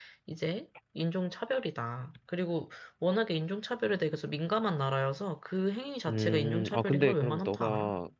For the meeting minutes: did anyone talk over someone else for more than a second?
Yes, from 6.1 s

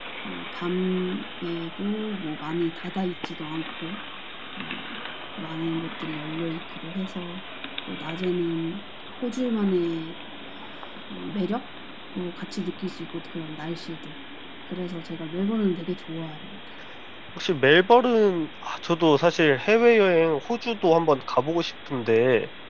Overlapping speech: No

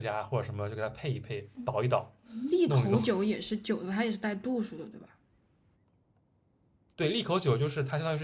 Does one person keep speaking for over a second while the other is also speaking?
No

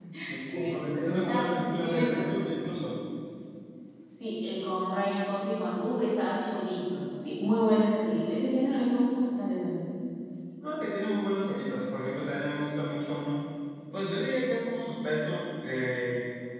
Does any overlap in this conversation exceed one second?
Yes, from 0.5 s

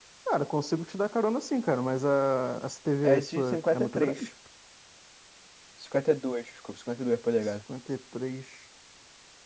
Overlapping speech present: Yes, from 3.0 s

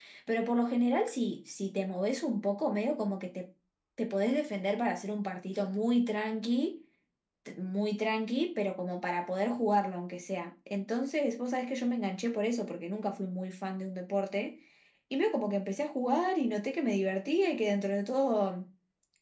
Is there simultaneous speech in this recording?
No

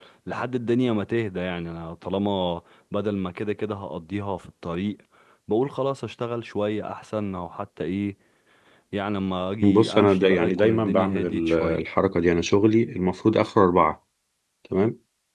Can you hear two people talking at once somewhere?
Yes, from 9.7 s

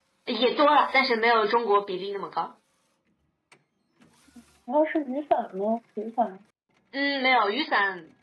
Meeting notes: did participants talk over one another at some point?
No

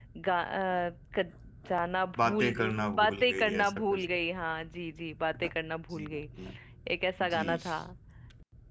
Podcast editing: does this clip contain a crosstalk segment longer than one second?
Yes, from 2.2 s

